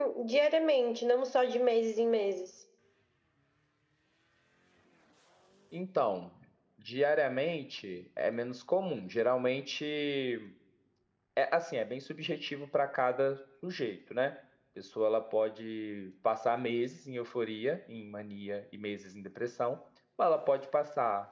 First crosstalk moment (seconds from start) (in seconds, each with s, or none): none